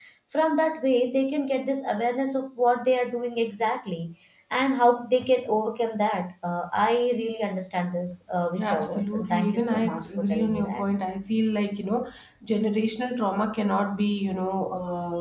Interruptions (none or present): present